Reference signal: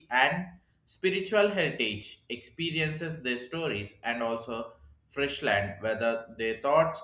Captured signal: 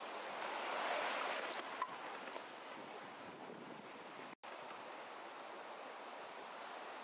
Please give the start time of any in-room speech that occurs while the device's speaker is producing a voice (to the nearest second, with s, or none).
none